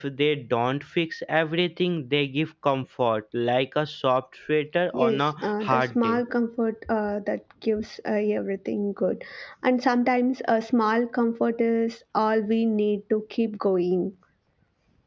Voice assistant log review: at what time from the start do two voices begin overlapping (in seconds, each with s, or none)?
4.9 s